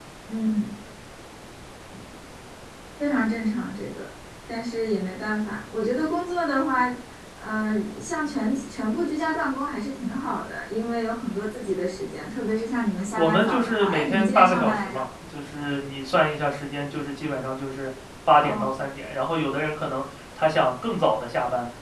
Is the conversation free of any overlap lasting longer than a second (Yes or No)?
No